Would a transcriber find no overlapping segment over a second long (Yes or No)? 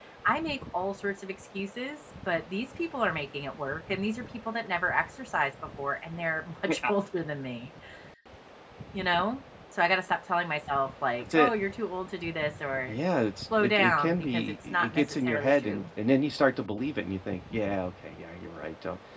No